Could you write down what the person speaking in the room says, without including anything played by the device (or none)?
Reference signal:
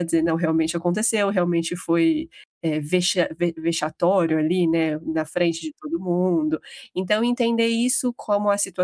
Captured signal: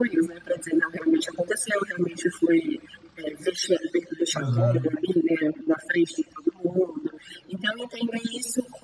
Aham.